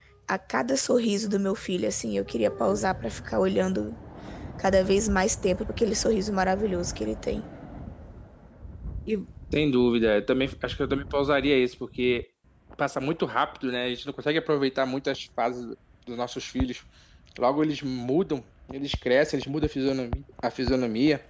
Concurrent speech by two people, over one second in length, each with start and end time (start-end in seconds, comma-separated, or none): none